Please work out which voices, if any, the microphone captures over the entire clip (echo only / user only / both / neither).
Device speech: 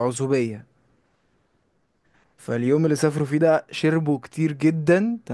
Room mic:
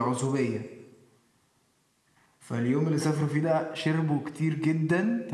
echo only